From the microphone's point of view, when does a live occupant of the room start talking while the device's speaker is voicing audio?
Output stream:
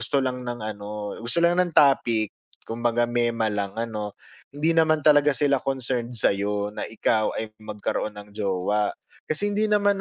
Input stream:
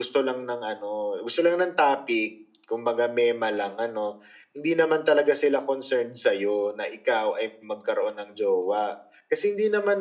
none

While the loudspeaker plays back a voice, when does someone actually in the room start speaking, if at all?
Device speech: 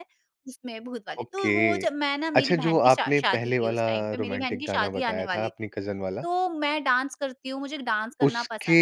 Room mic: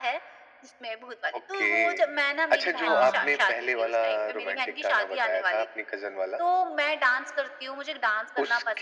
2.9 s

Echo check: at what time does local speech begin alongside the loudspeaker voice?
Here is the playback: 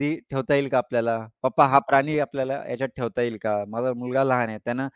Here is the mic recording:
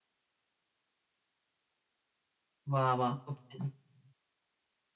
2.7 s

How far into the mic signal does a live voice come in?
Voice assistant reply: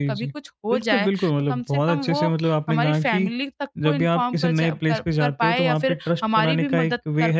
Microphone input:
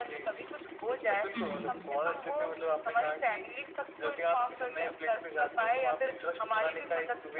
1.3 s

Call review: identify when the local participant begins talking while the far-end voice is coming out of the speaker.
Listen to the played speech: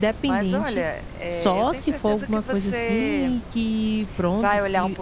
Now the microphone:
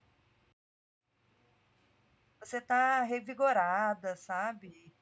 2.4 s

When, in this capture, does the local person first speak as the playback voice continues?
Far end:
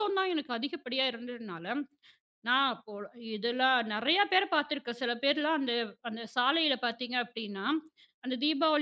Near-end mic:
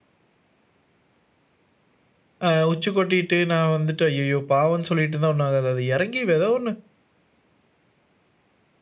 2.4 s

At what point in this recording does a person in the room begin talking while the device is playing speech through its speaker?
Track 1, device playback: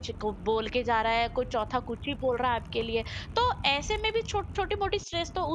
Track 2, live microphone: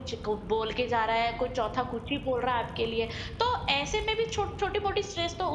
none

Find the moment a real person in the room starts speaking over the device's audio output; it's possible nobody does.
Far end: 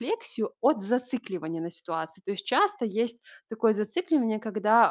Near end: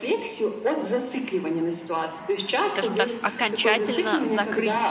2.7 s

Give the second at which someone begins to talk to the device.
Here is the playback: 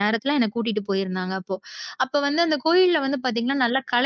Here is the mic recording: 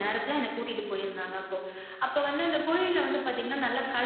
none

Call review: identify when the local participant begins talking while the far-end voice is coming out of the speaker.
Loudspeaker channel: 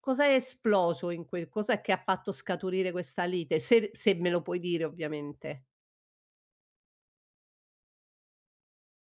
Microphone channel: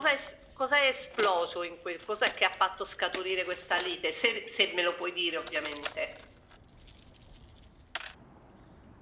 none

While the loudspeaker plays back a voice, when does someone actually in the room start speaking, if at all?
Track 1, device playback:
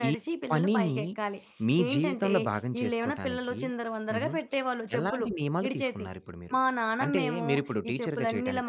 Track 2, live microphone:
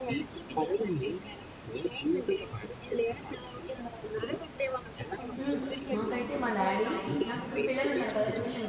5.4 s

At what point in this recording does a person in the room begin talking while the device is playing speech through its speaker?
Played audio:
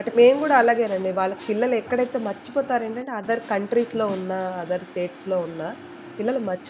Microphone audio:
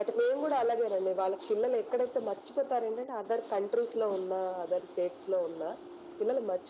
none

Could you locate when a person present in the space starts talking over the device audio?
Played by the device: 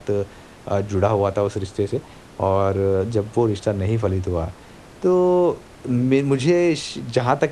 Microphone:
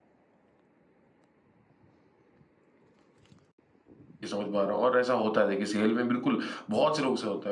4.2 s

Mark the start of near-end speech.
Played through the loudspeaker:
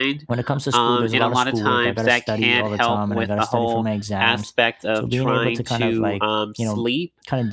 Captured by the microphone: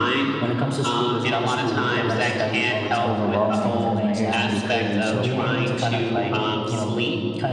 3.0 s

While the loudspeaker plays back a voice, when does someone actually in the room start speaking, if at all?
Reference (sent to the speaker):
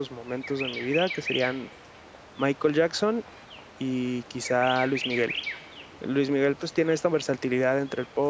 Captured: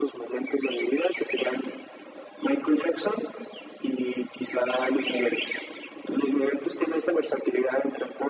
none

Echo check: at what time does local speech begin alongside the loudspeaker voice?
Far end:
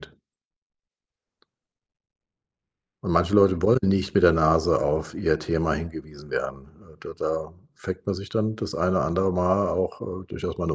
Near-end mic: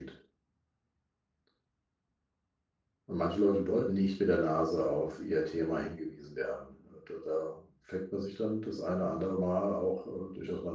none

